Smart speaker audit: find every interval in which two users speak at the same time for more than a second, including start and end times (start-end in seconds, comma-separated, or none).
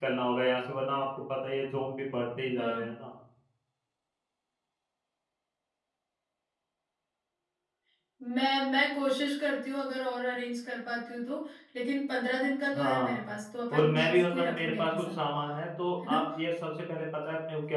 13.7-15.2